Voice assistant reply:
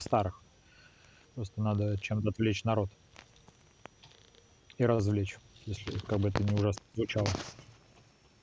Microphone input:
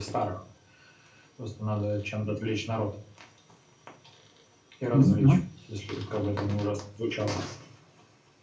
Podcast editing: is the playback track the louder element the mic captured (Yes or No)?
No